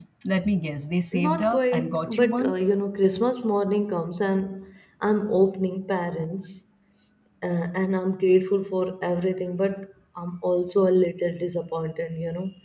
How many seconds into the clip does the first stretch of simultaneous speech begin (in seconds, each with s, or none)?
1.1 s